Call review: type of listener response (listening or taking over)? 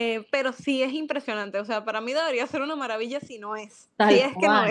taking over